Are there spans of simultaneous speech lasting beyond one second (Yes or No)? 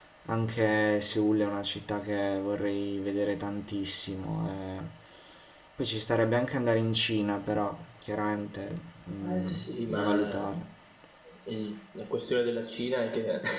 Yes